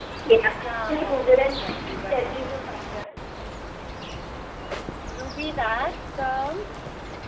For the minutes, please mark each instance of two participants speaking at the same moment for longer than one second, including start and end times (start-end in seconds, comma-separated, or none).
0.5-2.7